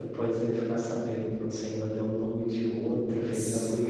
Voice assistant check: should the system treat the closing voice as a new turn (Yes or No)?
Yes